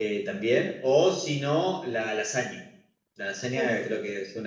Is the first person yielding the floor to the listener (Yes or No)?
No